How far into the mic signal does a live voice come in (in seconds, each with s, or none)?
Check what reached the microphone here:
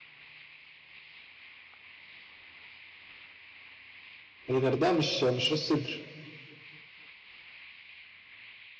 4.5 s